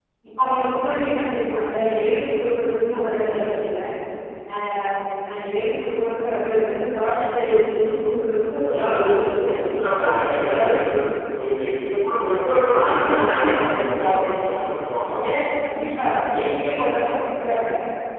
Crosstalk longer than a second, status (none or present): present